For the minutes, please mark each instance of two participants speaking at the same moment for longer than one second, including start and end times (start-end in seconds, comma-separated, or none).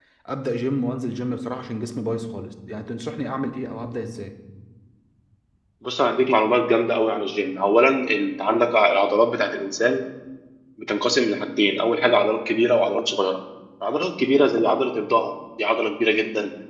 none